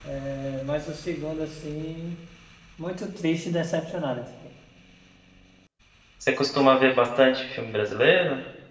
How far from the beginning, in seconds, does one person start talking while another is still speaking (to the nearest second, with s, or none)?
none